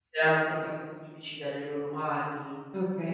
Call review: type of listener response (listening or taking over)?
taking over